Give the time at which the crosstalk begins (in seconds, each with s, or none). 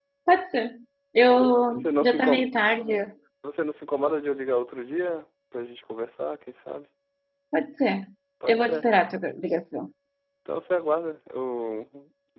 1.2 s